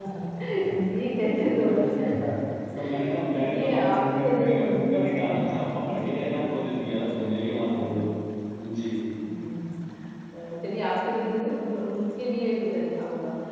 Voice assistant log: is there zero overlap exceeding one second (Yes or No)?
No